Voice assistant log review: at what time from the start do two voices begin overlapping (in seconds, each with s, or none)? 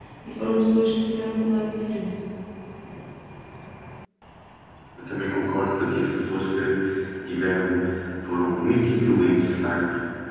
none